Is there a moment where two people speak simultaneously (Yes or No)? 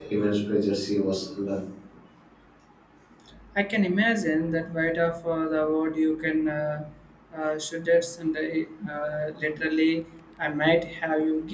No